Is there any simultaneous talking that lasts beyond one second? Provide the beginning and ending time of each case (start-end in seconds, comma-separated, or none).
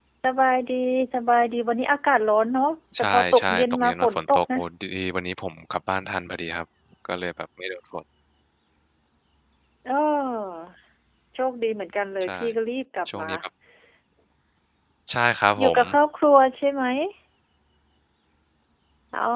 3.0-4.6